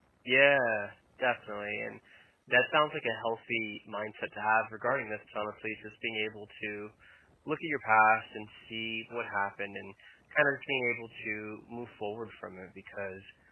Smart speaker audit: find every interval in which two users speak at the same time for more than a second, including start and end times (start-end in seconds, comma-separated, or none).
none